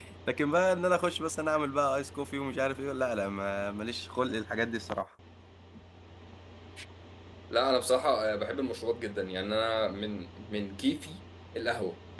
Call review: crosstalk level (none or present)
none